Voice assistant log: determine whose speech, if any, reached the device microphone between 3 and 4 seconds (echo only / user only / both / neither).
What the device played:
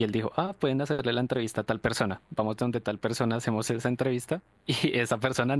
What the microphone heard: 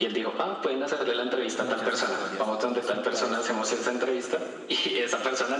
both